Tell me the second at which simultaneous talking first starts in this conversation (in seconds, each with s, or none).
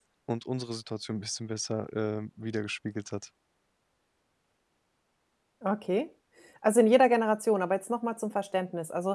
none